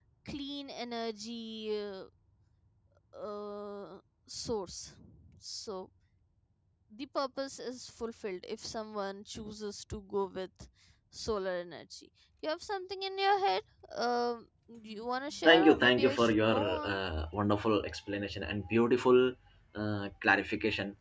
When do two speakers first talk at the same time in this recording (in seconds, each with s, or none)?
15.4 s